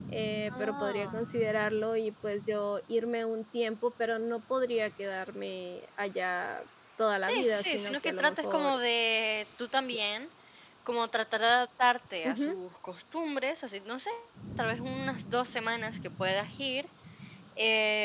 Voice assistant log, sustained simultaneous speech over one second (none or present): present